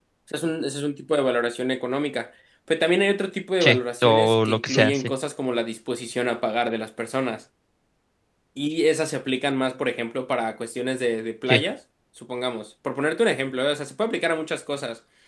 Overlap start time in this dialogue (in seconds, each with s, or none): 3.6 s